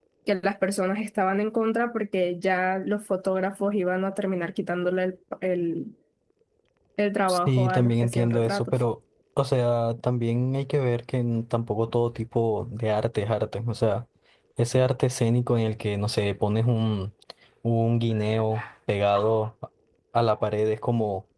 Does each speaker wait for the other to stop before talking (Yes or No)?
No